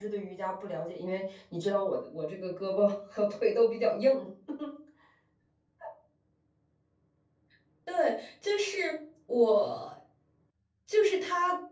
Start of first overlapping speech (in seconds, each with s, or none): none